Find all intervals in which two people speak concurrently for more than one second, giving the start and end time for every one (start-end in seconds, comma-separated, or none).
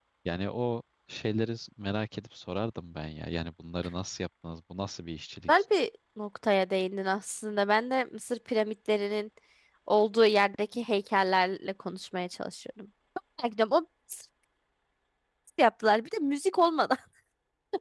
none